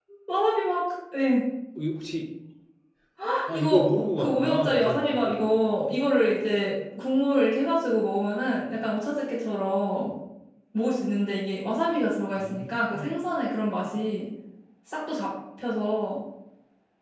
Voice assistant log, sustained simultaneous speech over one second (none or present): present